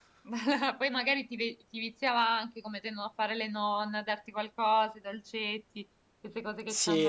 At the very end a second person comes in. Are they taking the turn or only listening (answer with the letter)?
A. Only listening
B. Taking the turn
B